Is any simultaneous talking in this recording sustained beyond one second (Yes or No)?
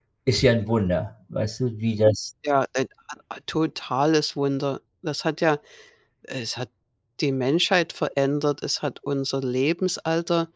No